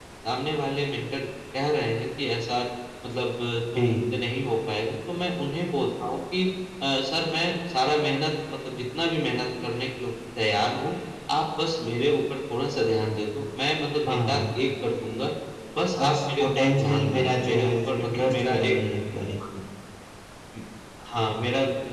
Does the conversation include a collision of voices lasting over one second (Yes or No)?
Yes